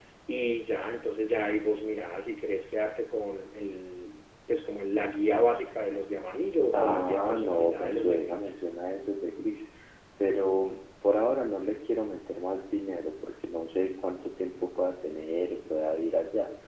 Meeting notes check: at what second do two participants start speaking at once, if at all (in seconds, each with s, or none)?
6.7 s